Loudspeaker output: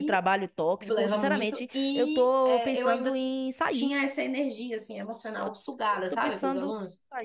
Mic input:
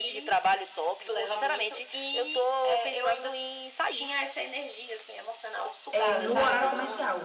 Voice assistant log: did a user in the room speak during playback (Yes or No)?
Yes